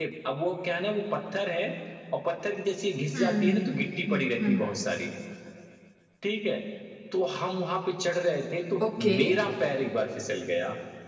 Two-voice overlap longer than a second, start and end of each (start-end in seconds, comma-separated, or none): 3.1-4.8